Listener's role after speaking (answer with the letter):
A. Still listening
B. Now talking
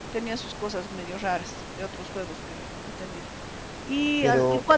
A